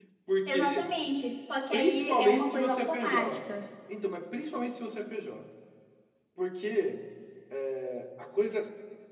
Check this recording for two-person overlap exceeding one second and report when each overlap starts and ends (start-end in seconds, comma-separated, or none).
1.7-3.6